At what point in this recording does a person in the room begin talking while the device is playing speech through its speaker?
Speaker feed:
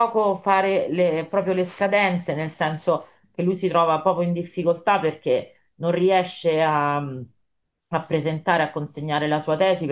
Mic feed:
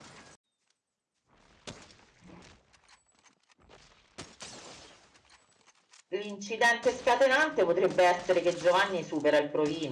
6 s

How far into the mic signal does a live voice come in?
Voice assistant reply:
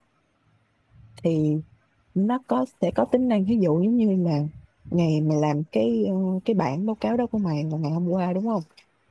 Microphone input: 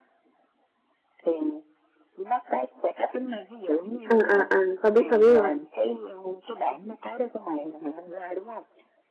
4 s

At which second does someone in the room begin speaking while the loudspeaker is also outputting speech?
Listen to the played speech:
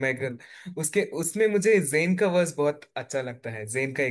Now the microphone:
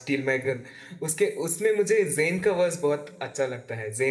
none

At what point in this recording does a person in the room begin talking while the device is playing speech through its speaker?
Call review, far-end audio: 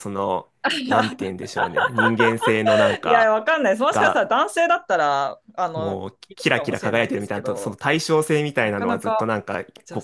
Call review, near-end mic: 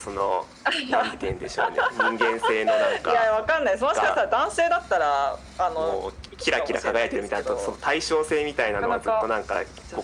none

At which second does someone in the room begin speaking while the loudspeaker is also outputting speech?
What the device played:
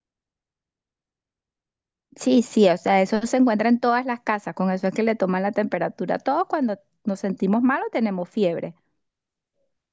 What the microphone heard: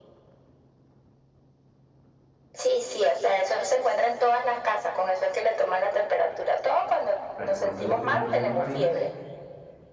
7 s

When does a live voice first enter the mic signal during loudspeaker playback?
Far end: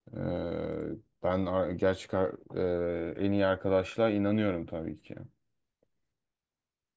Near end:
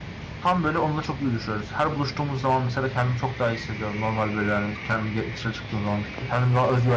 0 s

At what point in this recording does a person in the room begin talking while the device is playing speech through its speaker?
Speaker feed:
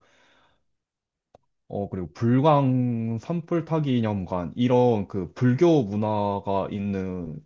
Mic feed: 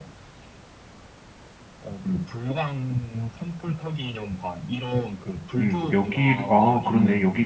6 s

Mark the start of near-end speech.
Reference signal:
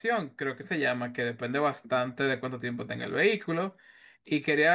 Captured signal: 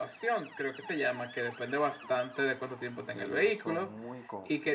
3 s

